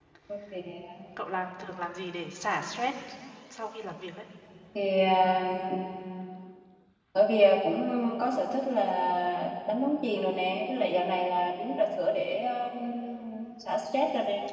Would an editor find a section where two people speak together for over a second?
No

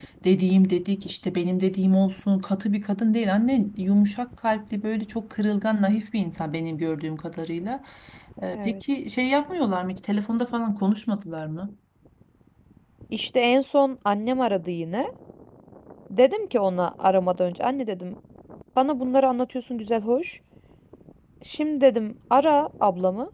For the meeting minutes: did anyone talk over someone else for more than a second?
No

